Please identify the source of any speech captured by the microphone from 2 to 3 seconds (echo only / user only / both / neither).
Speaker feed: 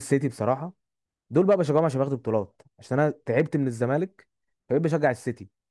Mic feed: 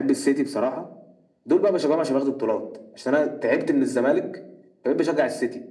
echo only